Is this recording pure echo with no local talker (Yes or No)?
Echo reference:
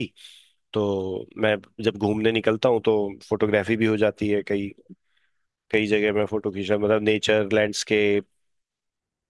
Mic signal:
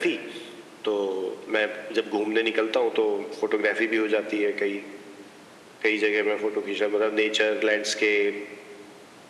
Yes